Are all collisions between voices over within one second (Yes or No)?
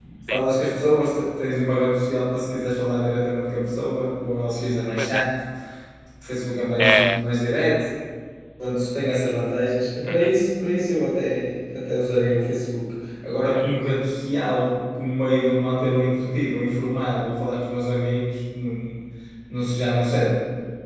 Yes